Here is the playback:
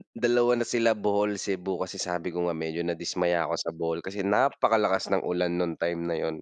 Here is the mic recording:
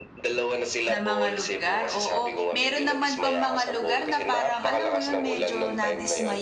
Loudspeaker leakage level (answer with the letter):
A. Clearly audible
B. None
A